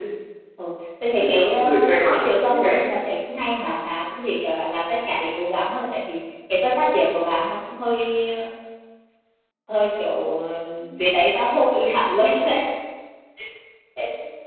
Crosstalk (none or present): present